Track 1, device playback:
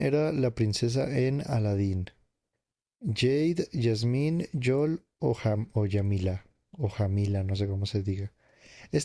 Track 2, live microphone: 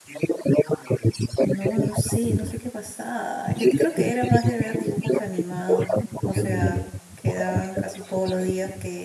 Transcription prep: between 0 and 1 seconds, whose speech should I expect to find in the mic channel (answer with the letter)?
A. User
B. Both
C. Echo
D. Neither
C